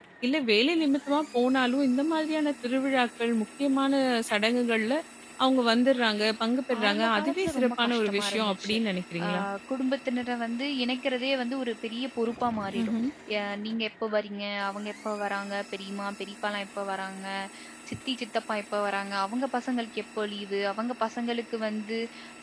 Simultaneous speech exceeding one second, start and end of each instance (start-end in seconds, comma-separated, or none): 6.8-8.7